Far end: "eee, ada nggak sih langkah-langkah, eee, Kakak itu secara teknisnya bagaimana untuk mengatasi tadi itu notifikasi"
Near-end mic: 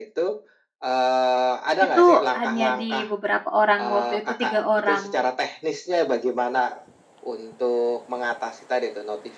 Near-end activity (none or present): present